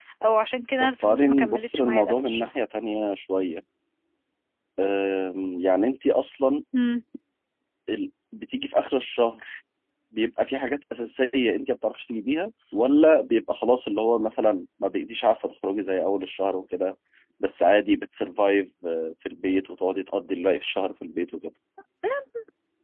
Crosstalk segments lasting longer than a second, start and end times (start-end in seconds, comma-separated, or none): 0.8-2.5